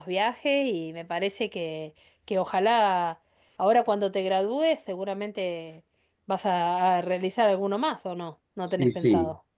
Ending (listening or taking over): taking over